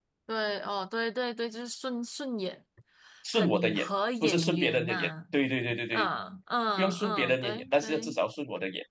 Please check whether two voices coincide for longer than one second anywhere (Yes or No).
Yes